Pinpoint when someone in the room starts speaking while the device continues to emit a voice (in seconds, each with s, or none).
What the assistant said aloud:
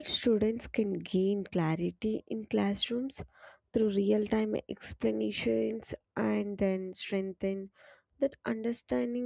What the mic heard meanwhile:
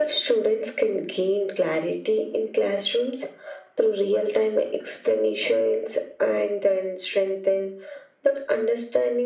none